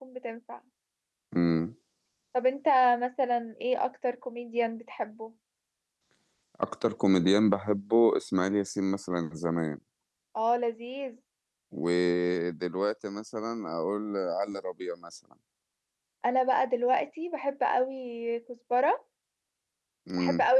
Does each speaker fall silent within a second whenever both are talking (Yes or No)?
Yes